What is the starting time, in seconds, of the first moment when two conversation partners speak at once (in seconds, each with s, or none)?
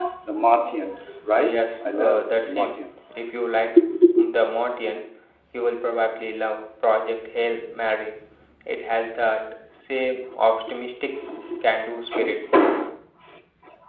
1.3 s